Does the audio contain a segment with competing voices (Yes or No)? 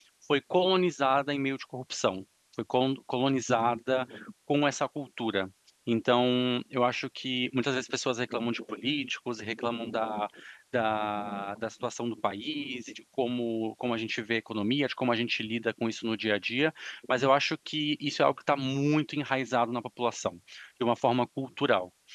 No